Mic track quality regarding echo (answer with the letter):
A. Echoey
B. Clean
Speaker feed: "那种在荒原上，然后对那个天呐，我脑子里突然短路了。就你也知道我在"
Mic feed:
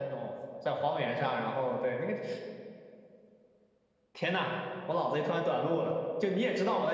A